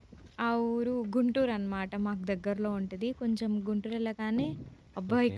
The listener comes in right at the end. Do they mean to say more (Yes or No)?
No